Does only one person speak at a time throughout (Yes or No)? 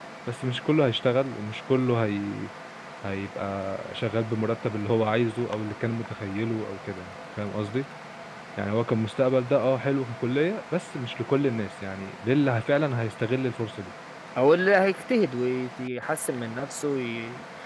Yes